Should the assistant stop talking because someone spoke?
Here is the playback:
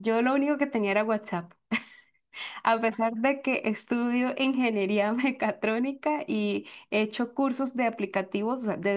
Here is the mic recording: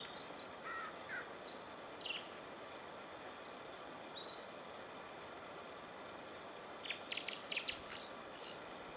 No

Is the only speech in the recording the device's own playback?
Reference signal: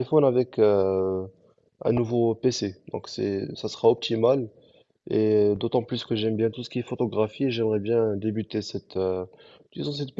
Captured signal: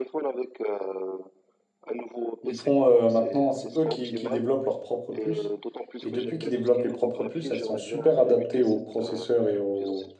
No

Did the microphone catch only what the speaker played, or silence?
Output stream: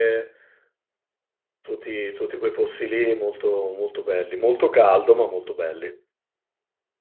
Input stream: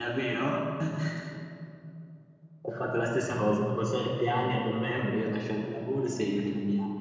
No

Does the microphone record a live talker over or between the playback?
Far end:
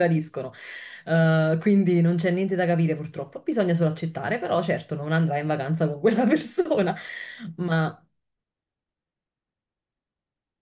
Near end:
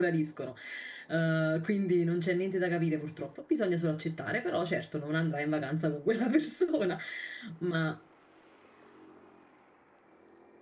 No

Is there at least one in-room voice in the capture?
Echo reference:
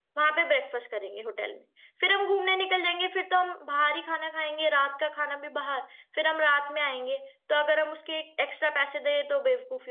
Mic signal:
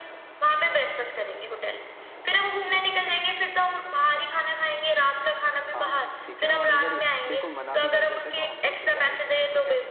Yes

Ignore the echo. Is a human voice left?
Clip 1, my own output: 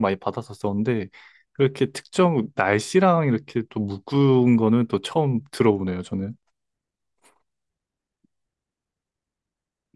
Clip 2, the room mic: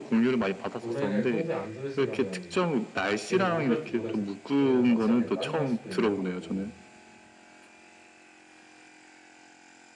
Yes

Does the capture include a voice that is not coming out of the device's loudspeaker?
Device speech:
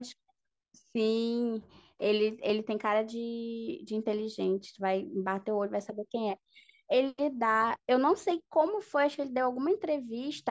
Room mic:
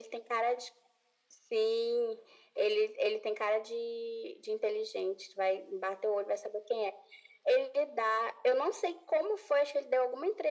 No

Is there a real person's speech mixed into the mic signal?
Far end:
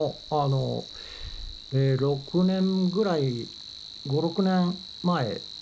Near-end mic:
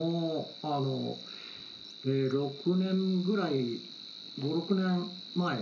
No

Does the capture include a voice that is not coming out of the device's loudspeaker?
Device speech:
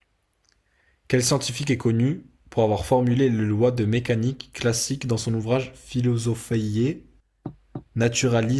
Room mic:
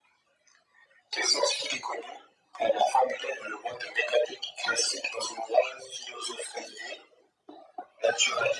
No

